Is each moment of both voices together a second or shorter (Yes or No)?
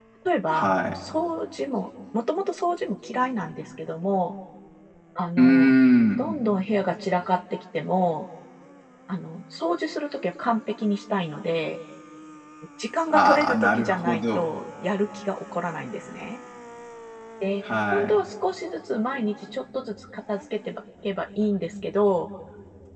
No